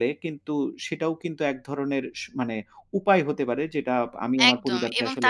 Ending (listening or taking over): taking over